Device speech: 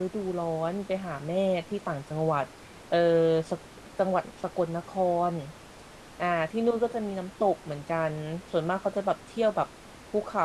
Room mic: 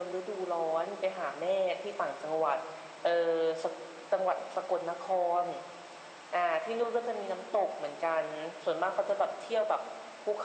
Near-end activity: none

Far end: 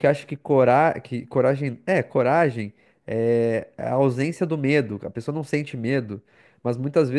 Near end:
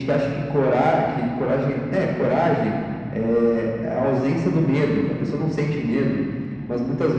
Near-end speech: none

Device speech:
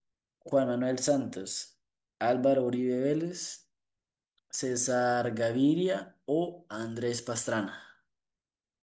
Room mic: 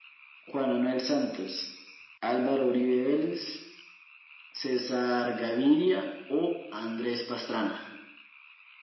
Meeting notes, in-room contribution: none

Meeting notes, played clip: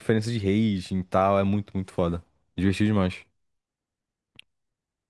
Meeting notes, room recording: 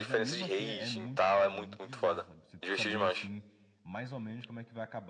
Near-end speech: present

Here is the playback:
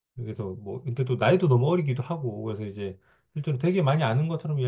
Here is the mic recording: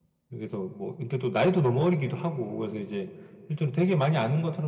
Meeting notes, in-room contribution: none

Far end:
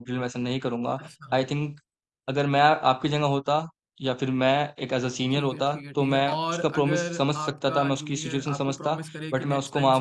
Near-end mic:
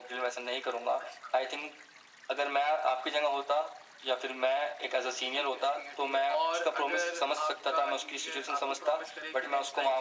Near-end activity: none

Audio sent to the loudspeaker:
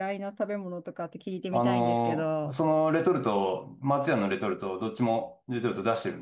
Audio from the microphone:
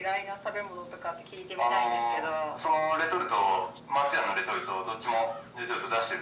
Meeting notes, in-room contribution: none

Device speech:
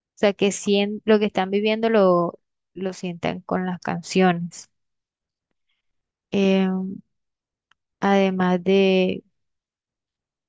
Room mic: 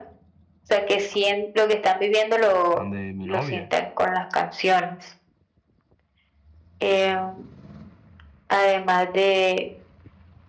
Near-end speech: present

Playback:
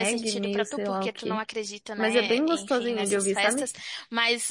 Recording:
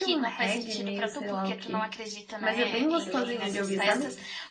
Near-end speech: present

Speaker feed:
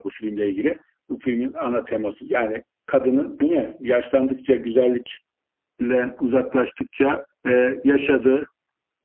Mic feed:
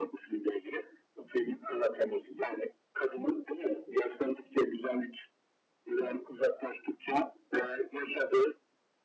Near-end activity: none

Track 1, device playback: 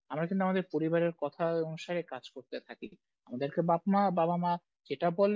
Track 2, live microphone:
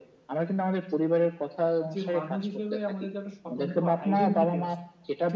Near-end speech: present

